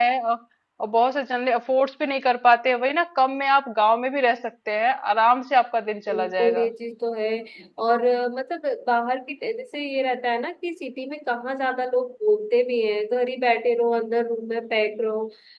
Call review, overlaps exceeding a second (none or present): none